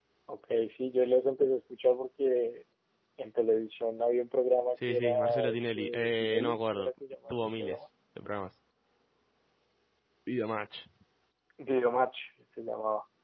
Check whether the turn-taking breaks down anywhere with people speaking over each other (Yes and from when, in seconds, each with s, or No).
Yes, from 4.8 s